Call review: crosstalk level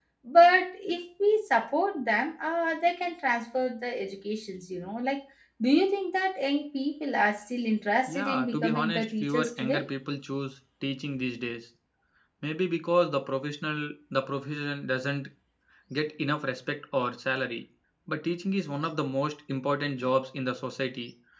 present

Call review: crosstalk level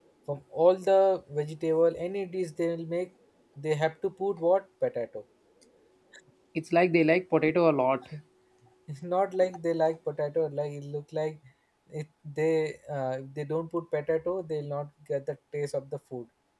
none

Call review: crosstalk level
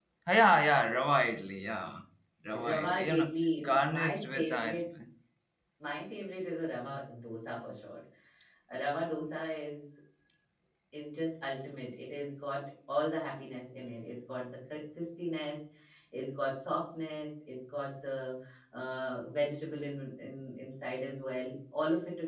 present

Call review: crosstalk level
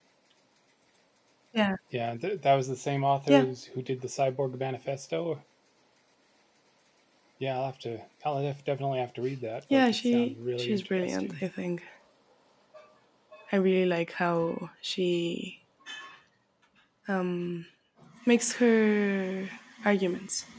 present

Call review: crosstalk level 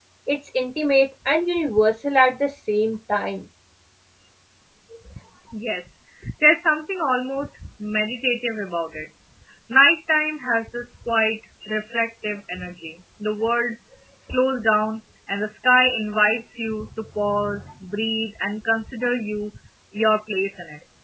none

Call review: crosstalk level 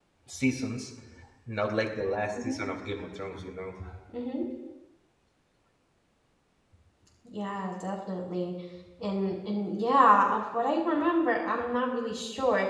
none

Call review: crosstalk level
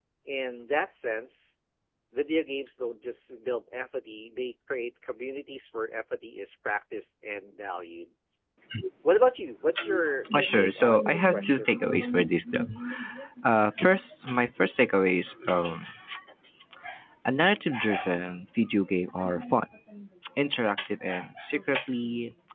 present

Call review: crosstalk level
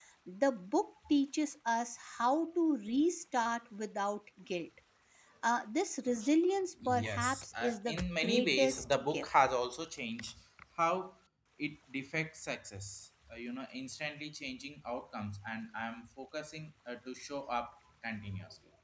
present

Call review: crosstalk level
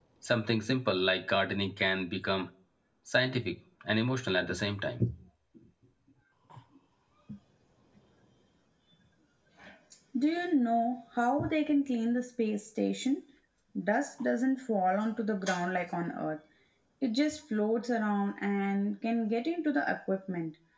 none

